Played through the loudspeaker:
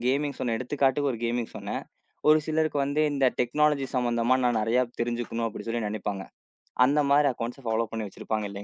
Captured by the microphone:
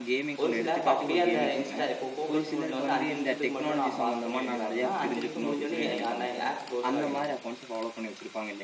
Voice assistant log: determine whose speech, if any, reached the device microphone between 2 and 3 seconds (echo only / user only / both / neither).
both